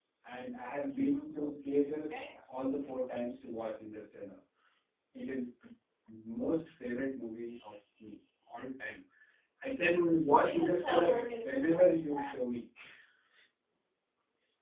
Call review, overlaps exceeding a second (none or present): present